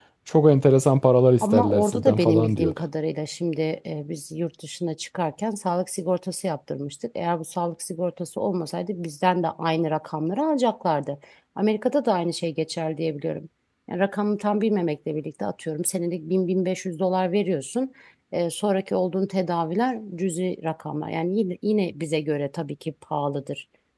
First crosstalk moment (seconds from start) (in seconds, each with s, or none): 1.4 s